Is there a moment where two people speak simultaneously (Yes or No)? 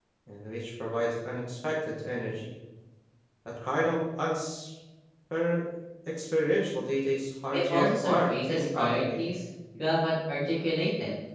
Yes